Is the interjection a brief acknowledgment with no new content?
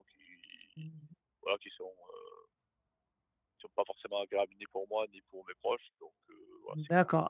No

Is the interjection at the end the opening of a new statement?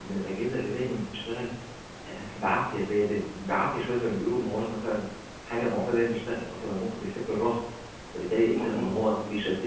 No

